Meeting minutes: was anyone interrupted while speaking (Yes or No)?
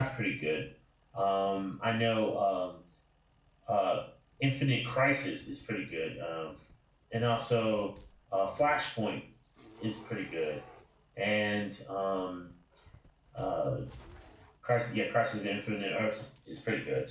No